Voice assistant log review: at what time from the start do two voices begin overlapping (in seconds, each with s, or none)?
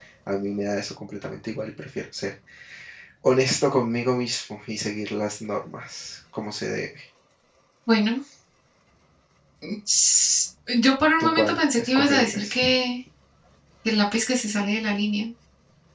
11.2 s